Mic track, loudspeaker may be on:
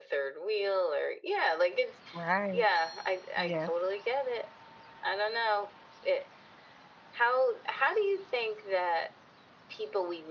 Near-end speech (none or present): present